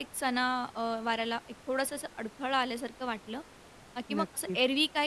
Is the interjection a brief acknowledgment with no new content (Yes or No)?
Yes